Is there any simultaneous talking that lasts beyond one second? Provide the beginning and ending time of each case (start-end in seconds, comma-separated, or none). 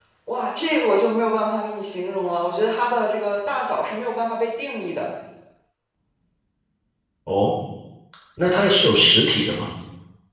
none